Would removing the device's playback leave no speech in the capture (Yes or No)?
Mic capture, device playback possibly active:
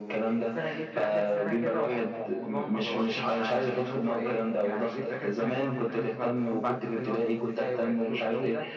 Yes